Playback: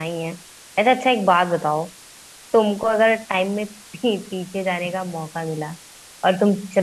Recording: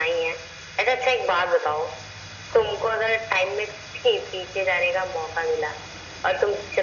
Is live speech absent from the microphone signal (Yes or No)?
Yes